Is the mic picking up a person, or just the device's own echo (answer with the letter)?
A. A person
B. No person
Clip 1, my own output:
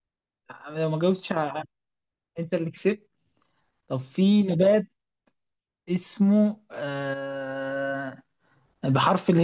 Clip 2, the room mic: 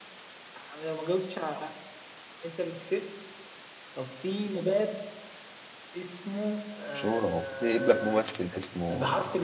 A